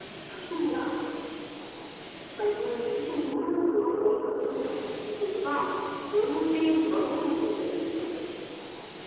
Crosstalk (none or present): present